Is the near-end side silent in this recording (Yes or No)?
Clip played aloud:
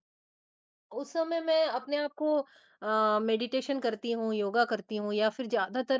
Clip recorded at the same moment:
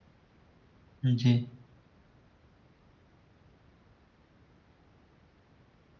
No